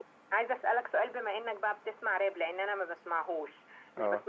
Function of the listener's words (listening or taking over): listening